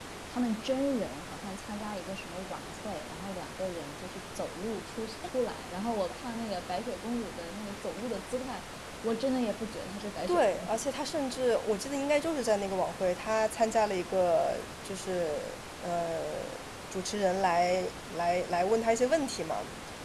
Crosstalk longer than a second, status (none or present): none